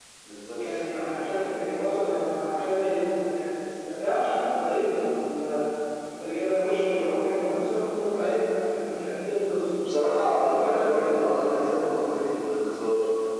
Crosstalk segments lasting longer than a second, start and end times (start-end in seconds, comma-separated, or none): 10.3-11.7